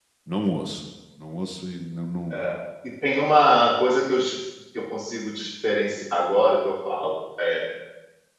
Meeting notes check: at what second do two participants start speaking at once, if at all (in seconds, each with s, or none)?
none